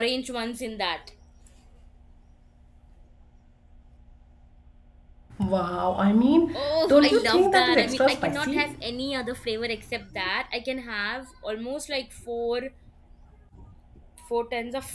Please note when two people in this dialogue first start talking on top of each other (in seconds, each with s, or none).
6.5 s